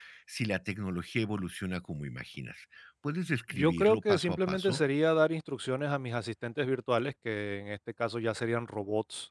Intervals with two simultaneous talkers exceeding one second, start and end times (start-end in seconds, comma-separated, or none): 3.5-4.8